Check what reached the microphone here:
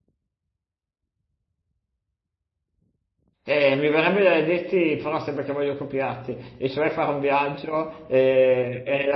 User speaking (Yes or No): Yes